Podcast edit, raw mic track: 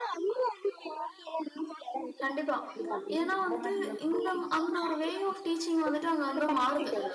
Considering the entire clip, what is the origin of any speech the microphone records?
both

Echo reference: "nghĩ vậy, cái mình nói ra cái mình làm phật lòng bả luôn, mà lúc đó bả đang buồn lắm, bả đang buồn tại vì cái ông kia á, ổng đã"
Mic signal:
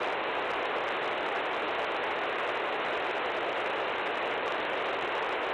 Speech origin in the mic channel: neither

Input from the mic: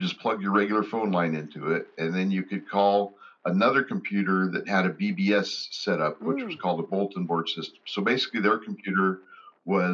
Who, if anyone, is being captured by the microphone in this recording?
both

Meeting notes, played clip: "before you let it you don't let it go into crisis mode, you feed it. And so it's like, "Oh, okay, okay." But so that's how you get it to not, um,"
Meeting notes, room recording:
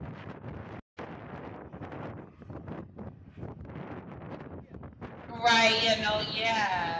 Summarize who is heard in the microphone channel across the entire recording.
user only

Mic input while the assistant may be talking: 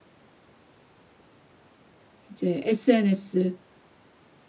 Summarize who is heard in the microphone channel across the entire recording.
user only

